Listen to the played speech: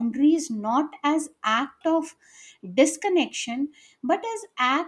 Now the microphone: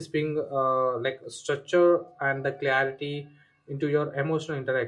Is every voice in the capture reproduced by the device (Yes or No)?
No